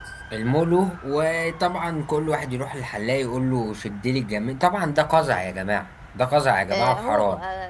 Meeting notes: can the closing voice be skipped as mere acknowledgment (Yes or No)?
No